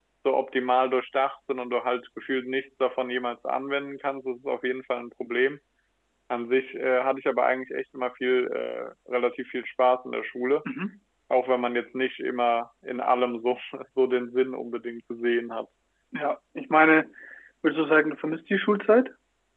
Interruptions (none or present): none